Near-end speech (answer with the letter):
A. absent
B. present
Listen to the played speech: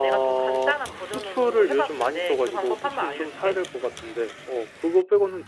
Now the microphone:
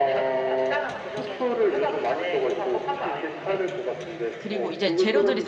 B